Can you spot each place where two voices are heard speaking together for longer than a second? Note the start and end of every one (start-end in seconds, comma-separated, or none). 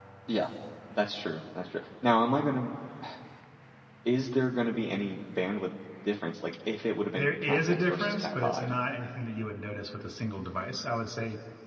7.2-8.7